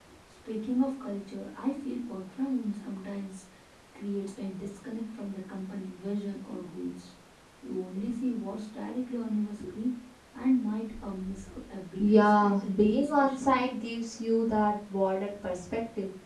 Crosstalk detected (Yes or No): Yes